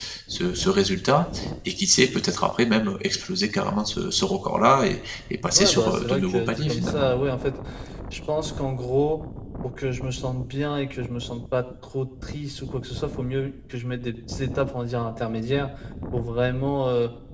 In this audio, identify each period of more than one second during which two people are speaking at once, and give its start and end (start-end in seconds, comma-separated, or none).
5.6-7.1